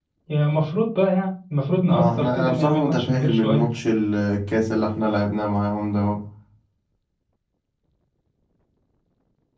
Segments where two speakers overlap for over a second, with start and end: 1.9-3.7

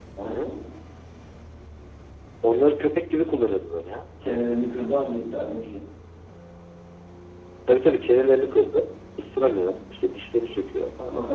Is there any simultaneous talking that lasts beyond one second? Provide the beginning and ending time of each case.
none

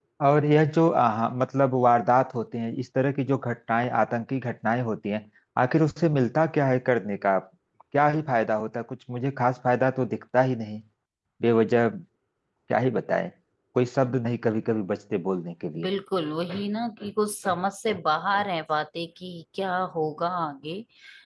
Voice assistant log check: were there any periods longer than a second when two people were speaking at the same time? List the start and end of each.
none

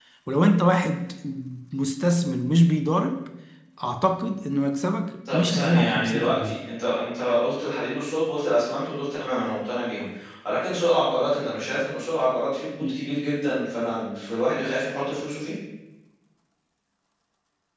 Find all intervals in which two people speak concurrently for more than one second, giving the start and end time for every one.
5.3-6.5

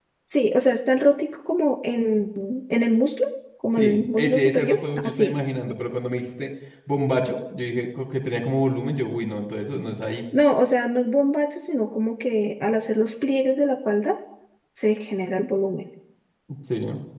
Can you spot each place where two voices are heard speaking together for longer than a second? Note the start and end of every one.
3.8-5.3

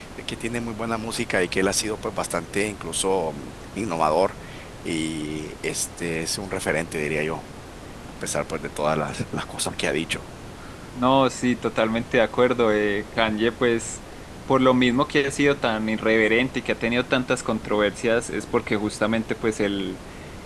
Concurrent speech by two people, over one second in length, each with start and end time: none

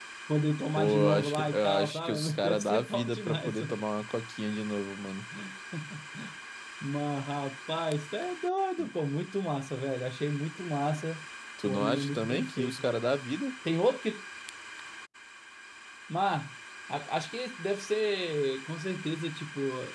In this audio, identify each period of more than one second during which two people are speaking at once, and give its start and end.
0.8-3.8, 11.7-13.0

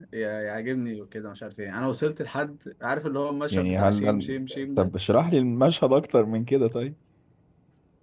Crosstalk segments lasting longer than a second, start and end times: 3.5-4.9

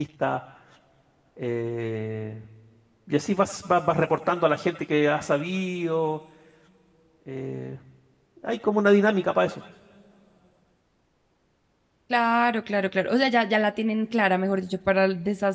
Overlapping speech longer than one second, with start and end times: none

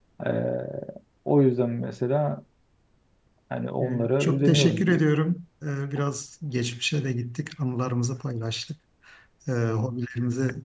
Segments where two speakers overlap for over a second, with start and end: 3.8-5.0

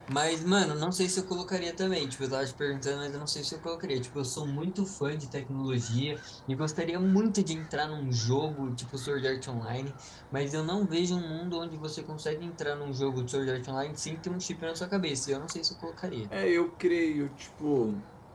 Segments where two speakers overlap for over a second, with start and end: none

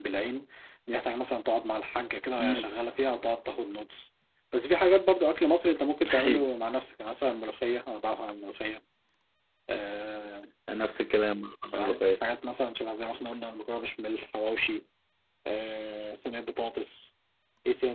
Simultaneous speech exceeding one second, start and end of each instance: none

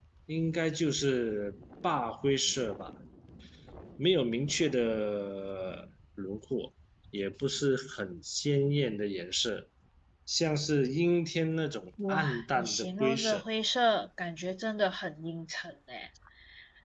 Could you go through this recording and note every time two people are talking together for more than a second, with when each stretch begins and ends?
12.1-13.4

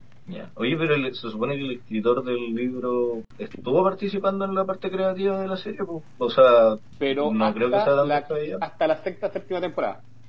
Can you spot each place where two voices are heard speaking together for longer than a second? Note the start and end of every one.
7.1-8.6

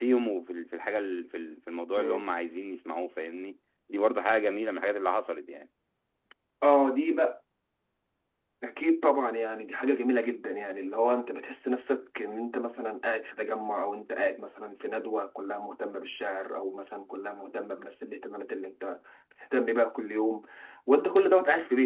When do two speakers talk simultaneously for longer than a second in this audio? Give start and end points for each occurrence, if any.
none

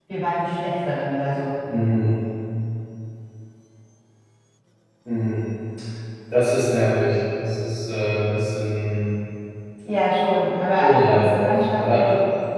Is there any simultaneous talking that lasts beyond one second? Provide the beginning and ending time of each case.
10.8-12.1

